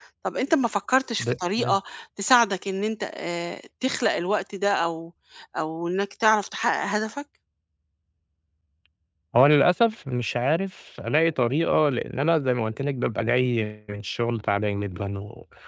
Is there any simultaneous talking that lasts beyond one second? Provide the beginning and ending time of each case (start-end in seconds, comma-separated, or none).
none